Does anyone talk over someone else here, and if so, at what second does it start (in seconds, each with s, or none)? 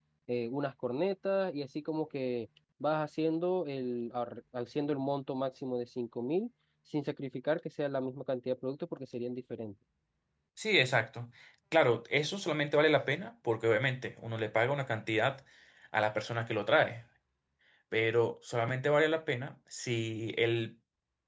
none